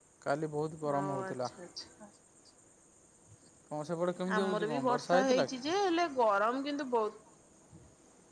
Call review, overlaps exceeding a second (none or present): present